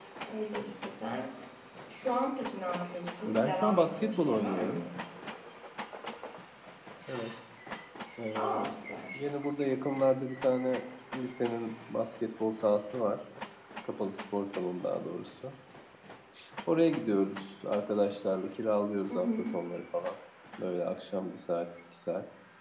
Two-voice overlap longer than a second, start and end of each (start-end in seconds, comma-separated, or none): 3.2-4.8